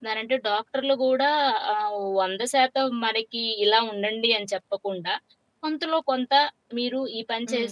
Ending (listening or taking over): listening